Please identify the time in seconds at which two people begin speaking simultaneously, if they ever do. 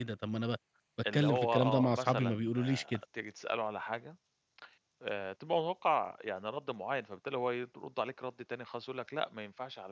1.1 s

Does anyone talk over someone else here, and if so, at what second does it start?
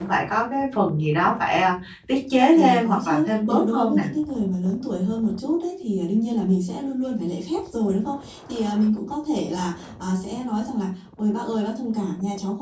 2.6 s

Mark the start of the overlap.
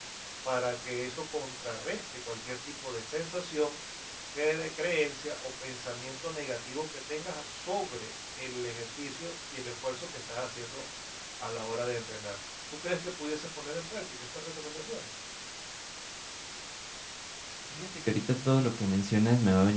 none

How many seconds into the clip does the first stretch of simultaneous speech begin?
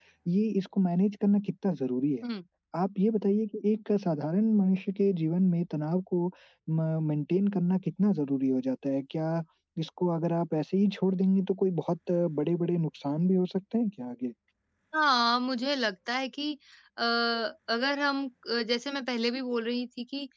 none

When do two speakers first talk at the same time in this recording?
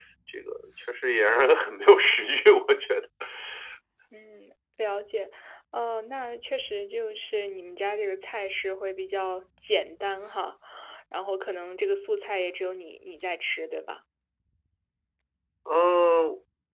none

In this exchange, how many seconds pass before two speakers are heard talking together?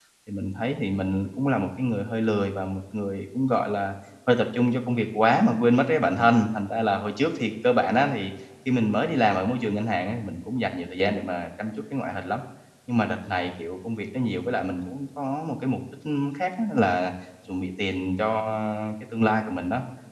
none

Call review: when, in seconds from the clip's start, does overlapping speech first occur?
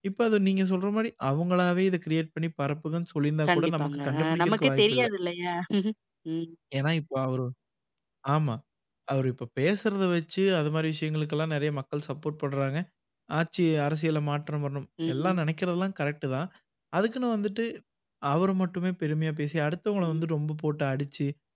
3.5 s

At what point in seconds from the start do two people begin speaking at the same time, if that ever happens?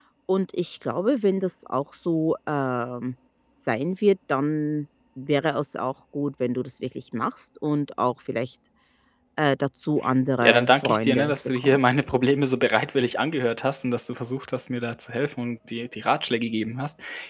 10.4 s

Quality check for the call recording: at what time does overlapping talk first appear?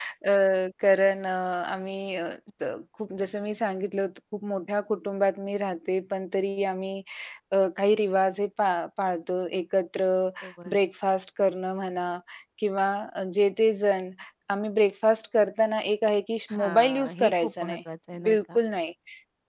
16.5 s

